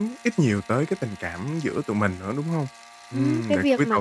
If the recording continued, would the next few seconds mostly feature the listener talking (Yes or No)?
Yes